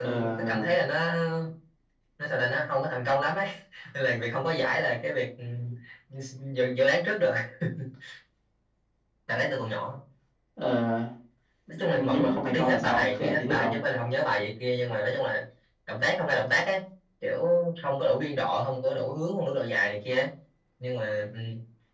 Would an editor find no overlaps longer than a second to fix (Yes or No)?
No